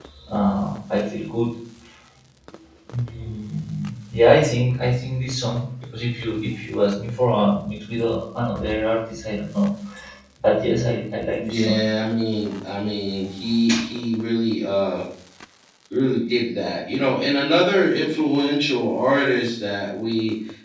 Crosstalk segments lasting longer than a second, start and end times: none

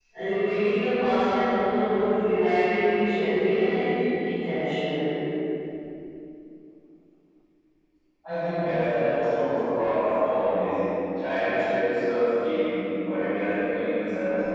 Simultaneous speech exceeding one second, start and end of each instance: none

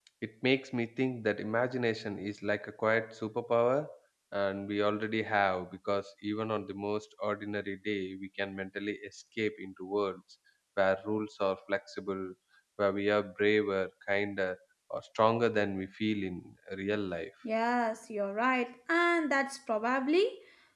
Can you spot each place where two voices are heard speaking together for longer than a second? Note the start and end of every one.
none

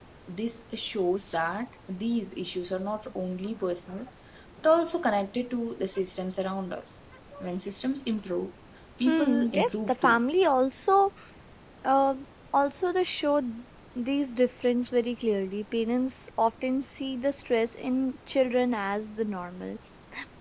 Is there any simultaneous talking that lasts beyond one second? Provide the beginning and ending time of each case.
9.0-10.2

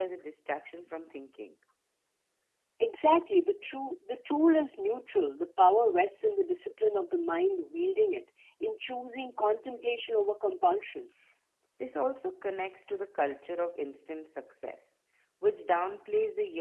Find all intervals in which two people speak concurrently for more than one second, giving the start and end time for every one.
none

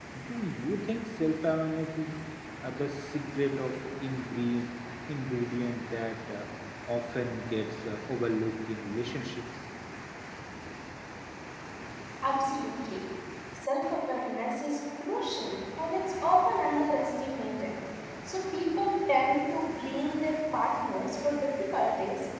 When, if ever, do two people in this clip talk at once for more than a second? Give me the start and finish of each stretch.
none

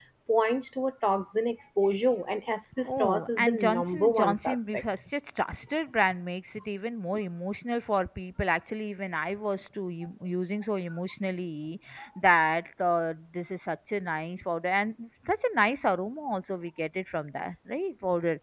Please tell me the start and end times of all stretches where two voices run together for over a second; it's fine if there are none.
2.9-4.8

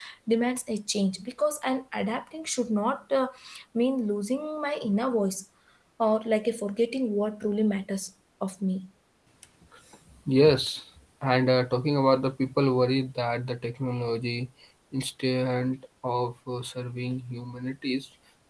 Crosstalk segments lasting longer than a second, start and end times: none

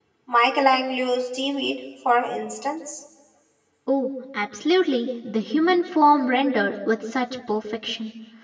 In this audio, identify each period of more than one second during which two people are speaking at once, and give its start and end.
none

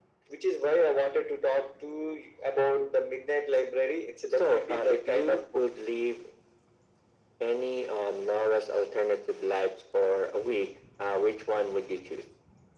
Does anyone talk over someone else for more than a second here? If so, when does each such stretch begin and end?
4.4-5.6

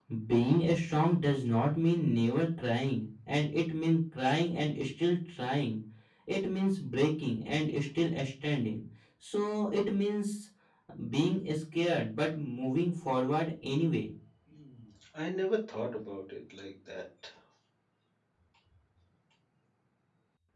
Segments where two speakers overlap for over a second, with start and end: none

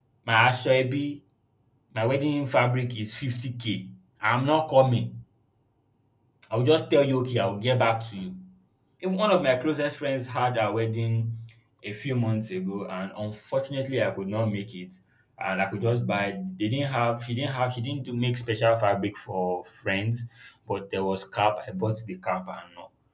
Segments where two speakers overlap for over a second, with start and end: none

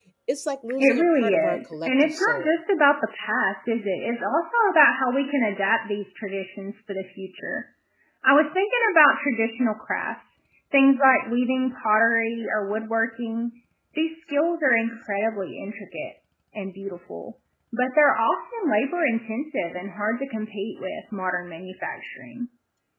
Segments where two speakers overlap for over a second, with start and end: 0.8-2.6

